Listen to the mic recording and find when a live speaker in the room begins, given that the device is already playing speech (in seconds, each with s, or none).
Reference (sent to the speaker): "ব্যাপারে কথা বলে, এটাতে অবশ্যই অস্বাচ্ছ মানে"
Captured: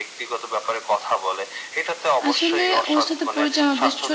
2.3 s